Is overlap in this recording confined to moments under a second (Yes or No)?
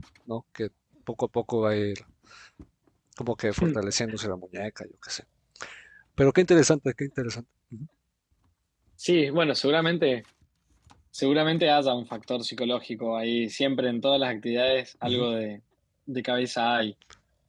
Yes